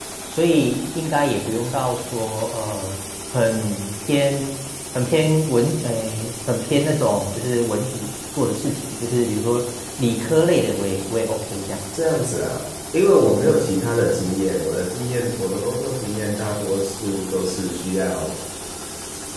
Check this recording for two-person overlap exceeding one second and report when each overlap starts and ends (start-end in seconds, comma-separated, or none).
none